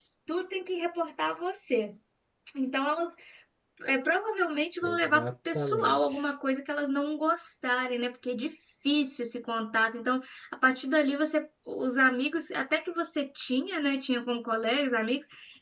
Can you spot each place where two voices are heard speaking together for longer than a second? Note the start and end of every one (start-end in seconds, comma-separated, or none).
4.8-6.3